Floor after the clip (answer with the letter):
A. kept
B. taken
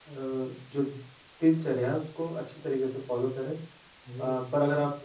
A